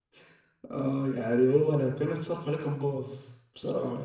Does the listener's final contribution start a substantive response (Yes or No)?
Yes